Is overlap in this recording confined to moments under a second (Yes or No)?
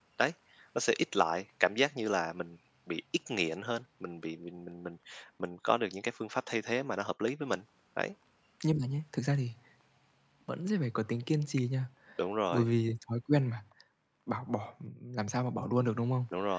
Yes